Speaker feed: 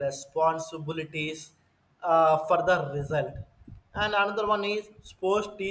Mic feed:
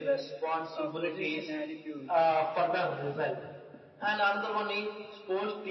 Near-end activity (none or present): present